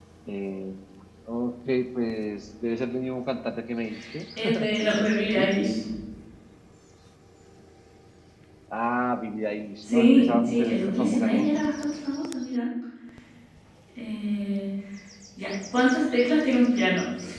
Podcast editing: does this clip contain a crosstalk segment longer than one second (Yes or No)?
Yes